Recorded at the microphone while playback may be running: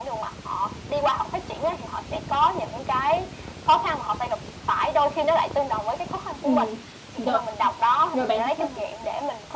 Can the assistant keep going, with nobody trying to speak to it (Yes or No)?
No